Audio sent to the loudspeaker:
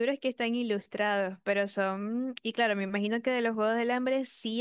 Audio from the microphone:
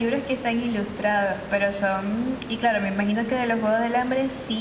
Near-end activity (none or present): none